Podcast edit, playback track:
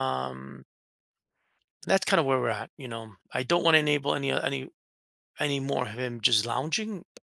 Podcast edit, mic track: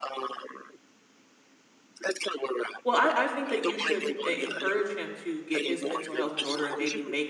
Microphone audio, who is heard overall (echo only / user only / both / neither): both